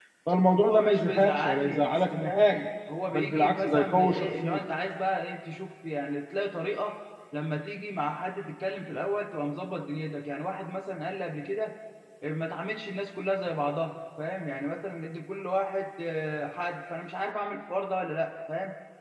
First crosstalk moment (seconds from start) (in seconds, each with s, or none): 0.6 s